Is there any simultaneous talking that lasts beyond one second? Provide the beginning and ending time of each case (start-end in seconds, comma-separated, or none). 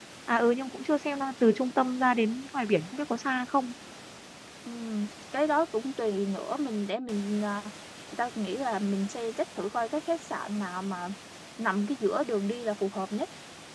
none